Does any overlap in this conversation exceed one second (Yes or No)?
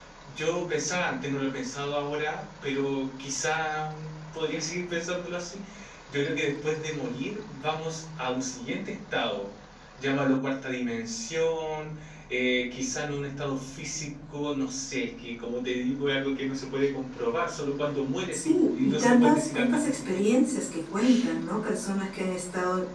Yes